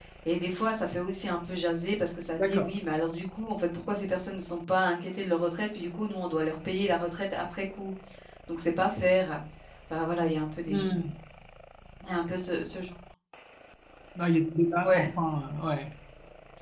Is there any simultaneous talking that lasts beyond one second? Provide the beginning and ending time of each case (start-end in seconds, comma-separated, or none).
none